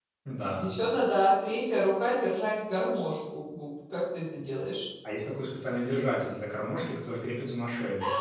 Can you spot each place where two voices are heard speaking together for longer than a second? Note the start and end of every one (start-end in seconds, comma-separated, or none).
none